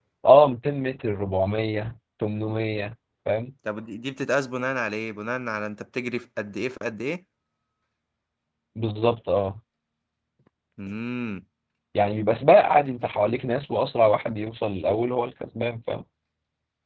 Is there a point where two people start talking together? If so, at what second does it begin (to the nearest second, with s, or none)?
none